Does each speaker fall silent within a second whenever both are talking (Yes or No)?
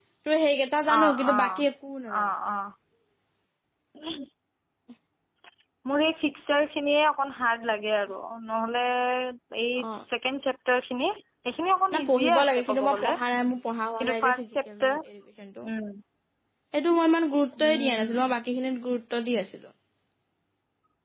No